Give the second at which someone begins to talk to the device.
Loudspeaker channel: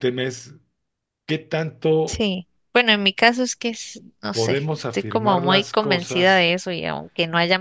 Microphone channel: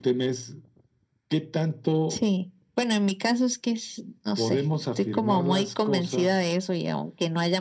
none

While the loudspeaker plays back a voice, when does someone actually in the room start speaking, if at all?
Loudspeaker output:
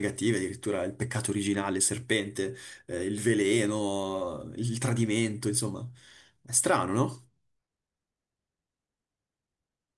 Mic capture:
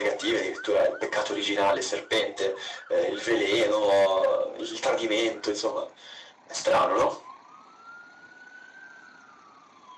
none

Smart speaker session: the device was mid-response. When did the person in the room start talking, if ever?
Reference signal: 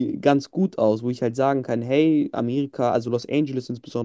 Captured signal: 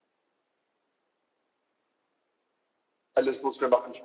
3.1 s

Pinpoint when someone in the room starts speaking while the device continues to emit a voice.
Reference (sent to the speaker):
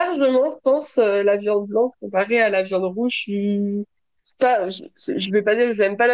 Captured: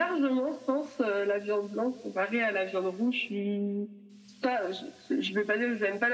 none

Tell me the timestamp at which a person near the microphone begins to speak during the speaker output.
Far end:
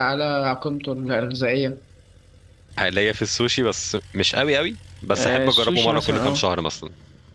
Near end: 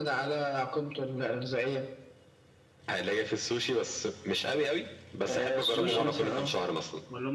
5.7 s

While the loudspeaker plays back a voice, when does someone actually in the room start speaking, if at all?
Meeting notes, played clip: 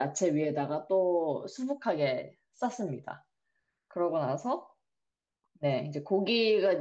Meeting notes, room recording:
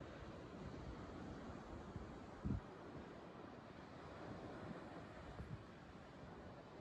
none

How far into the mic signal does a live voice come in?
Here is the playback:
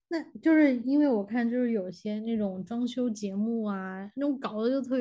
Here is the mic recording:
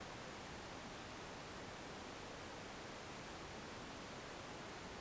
none

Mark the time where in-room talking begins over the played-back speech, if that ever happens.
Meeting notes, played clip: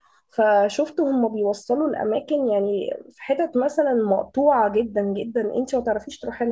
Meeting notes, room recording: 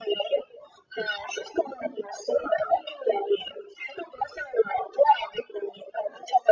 none

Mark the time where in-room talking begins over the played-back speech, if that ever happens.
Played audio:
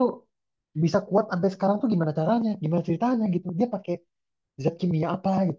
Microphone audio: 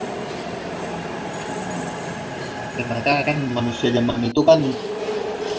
2.8 s

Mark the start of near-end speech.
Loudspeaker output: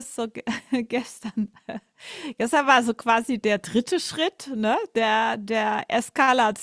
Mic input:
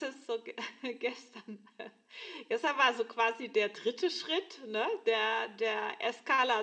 none

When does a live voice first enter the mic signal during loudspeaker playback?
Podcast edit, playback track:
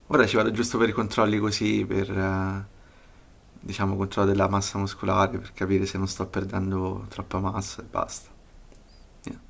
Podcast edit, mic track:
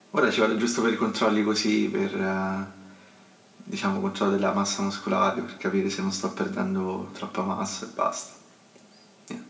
none

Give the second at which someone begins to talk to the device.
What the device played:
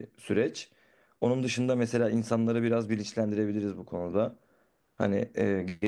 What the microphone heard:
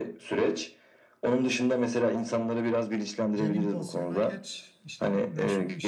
3.3 s

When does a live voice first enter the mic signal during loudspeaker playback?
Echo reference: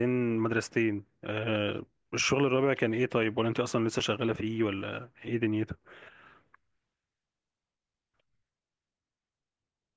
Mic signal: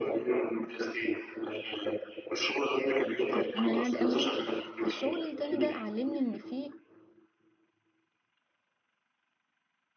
3.4 s

